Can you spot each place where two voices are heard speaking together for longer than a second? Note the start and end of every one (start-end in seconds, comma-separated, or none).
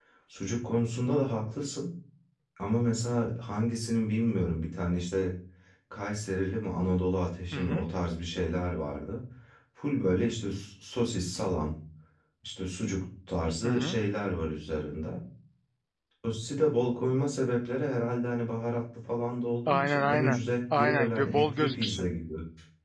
19.7-22.1